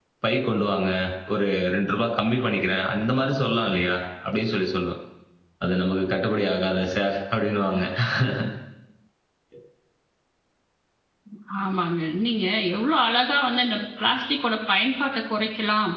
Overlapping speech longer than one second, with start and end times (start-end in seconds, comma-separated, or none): none